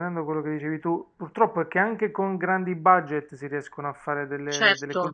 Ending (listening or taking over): taking over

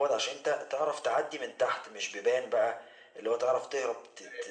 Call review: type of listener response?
listening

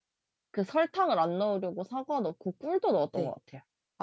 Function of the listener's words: taking over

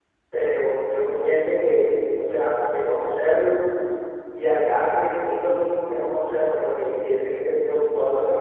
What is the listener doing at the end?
taking over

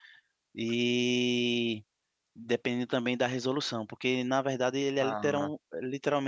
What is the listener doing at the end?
listening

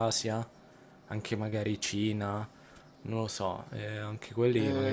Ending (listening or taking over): taking over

